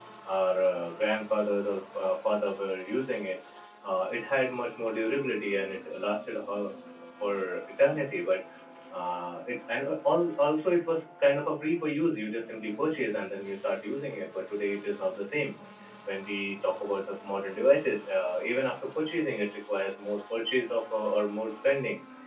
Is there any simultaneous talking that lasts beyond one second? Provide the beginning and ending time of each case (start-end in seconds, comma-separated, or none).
none